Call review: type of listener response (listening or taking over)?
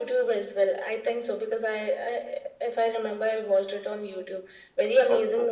listening